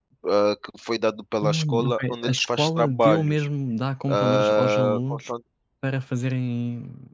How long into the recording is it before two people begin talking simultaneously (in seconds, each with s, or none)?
1.4 s